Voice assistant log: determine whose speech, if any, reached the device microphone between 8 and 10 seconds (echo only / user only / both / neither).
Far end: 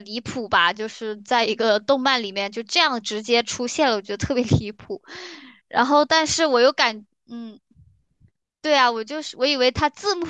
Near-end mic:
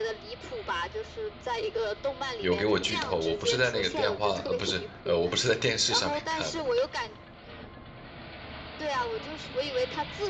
echo only